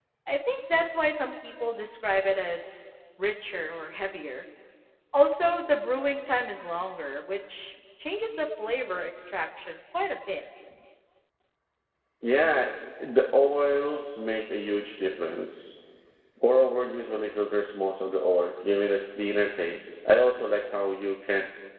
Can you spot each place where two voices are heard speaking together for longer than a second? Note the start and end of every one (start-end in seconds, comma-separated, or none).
none